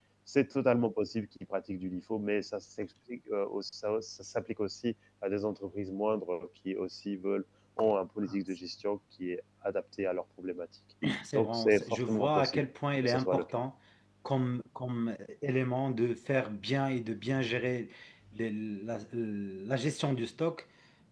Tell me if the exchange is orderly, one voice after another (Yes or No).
No